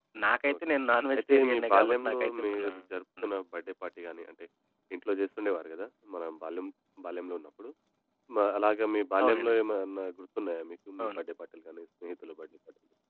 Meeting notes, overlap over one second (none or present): present